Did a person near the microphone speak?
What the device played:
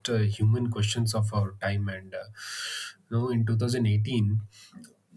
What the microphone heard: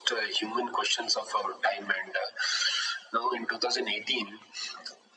No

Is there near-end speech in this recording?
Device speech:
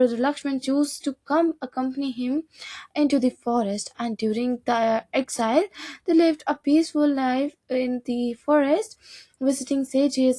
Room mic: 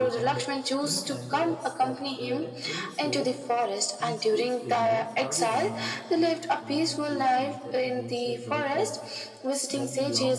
Yes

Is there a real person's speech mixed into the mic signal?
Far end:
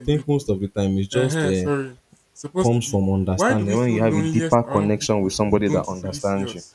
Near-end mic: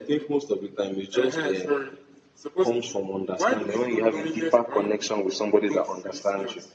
No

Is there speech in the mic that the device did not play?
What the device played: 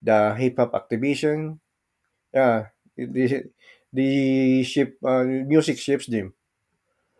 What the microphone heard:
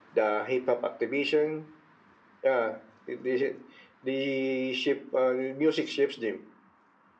No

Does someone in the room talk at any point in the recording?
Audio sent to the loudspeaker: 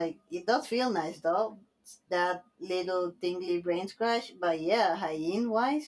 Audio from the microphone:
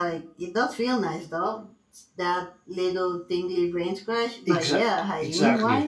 Yes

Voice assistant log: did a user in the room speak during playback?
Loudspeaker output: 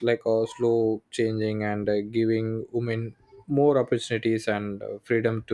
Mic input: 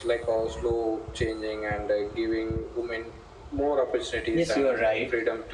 Yes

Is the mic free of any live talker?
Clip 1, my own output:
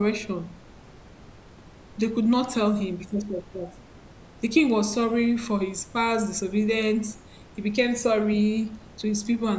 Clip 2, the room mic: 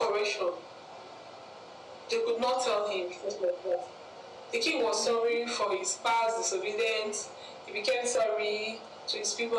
No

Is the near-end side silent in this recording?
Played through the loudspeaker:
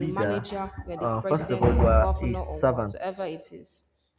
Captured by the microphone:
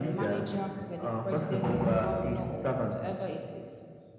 Yes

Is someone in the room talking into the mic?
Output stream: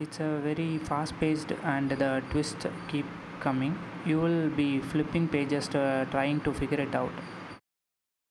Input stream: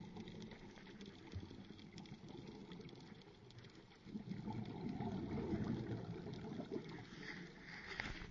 No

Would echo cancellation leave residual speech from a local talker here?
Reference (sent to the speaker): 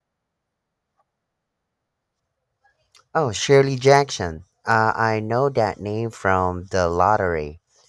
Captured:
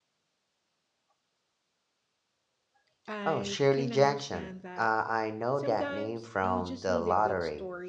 Yes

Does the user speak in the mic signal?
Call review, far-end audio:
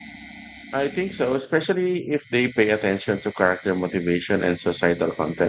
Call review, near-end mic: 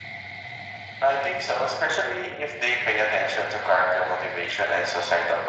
No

